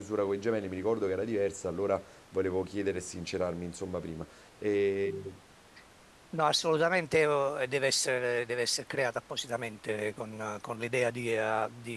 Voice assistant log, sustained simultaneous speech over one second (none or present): none